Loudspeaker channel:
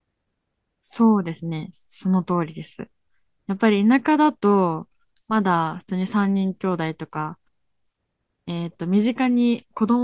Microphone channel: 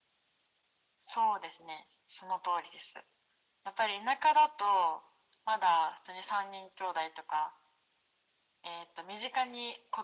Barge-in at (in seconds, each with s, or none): none